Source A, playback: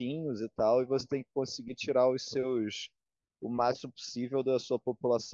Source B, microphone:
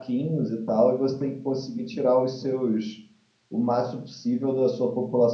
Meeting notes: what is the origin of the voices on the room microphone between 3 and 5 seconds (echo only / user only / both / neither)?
echo only